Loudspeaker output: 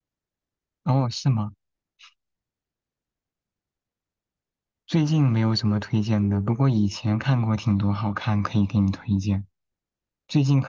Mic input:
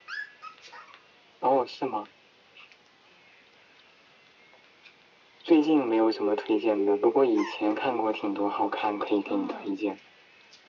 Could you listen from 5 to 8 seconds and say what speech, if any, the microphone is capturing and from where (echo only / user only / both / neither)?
echo only